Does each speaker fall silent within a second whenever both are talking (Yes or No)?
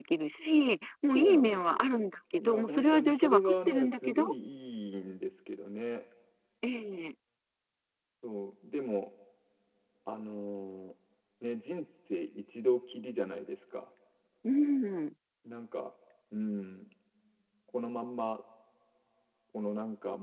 No